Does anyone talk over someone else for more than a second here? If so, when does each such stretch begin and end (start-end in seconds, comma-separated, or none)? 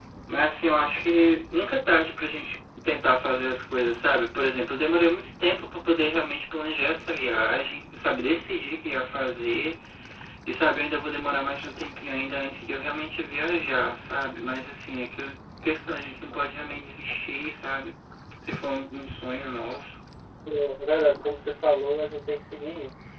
none